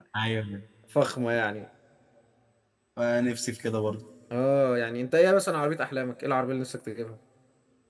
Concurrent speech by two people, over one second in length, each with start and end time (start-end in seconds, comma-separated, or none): none